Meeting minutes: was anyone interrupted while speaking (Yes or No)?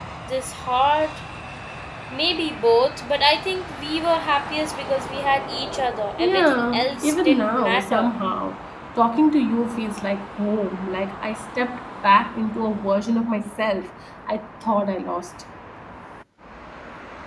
Yes